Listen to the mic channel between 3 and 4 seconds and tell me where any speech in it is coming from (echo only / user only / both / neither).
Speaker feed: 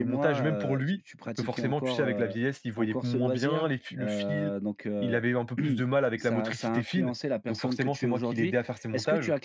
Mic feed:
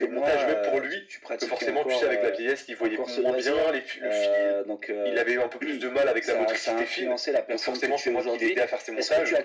echo only